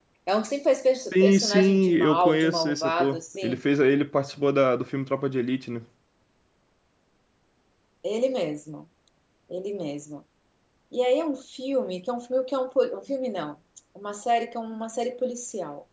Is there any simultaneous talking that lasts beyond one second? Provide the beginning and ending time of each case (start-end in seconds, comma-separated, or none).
1.1-3.6